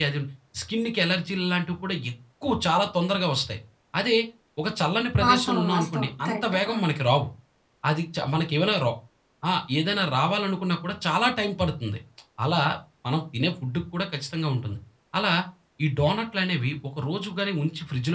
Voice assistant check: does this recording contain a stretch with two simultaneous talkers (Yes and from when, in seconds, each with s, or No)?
Yes, from 5.2 s